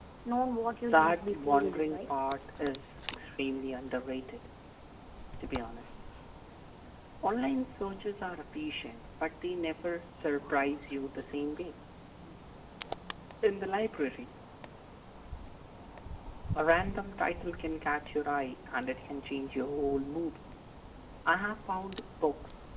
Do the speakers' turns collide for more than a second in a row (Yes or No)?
Yes